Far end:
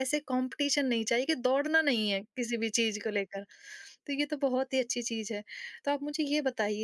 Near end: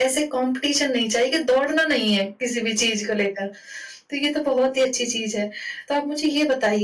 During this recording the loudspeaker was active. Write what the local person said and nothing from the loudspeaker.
none

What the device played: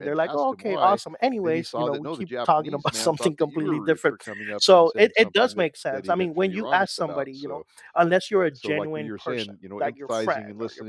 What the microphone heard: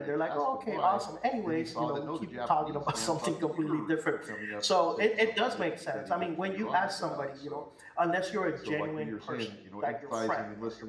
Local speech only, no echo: none

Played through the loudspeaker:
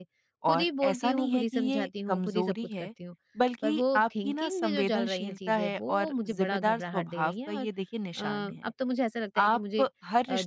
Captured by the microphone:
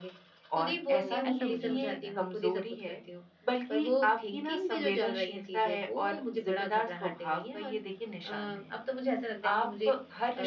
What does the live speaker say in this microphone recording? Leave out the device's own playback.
तो ऐसा मुझे होने लगा है।

